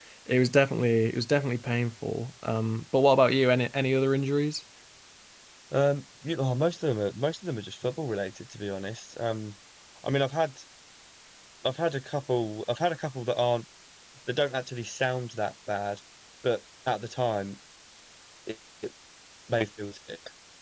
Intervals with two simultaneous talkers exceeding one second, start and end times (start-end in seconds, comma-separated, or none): none